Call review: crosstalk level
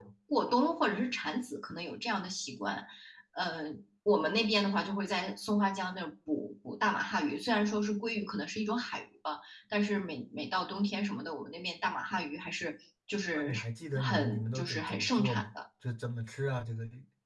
present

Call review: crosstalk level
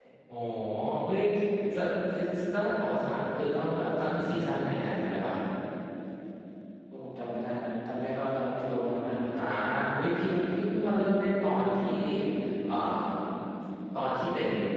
none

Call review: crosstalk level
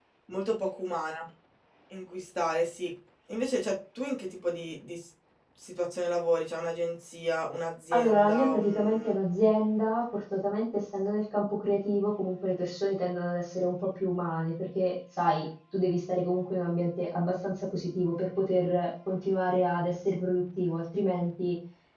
present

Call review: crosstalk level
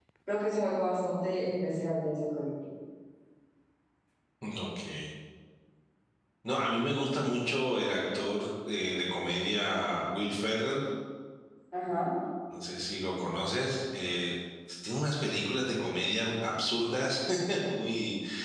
none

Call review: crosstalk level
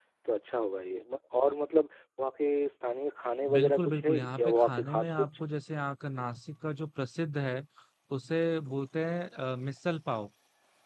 present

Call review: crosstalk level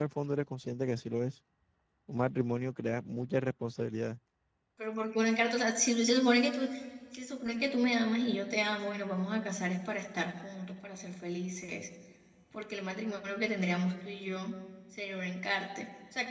none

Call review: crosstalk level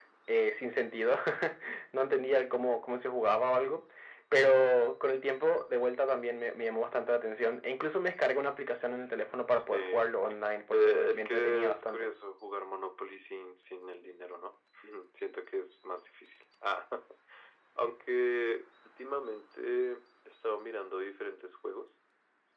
present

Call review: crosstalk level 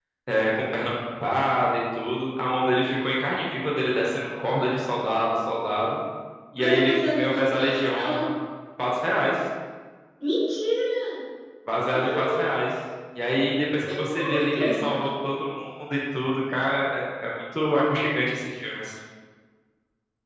present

